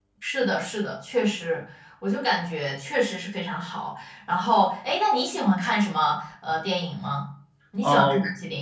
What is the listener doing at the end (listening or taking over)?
taking over